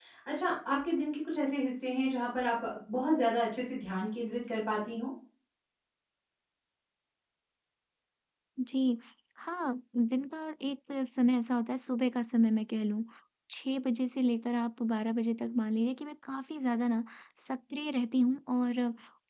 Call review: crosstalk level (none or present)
none